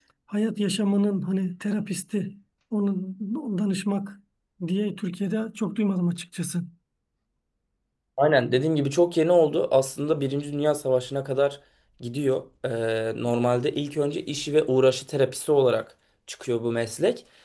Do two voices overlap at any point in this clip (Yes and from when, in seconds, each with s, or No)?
No